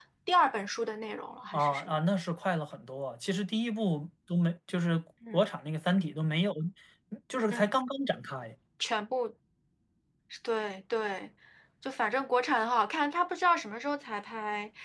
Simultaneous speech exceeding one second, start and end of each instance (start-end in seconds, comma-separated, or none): none